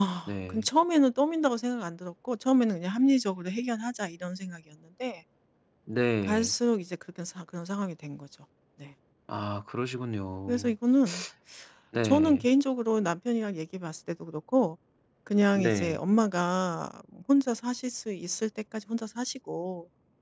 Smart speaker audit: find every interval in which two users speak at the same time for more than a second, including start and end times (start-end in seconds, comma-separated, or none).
none